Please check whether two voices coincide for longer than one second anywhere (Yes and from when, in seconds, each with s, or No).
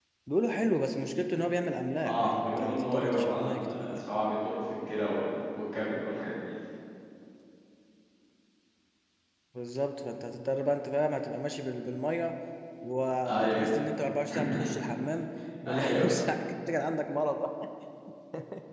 Yes, from 2.0 s